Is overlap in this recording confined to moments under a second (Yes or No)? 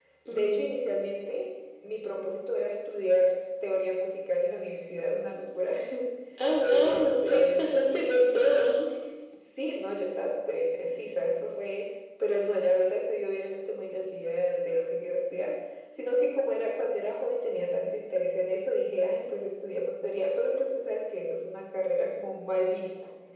No